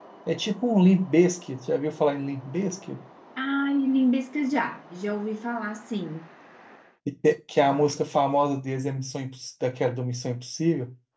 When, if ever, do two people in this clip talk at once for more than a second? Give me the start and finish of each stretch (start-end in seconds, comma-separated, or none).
none